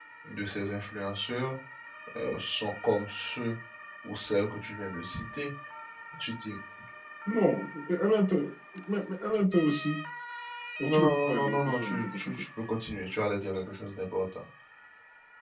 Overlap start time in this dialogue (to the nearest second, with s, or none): 11 s